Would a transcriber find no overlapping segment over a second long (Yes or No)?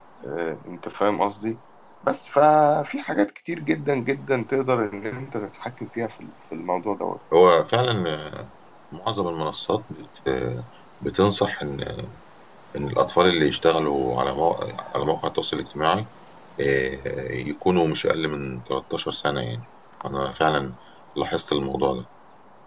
Yes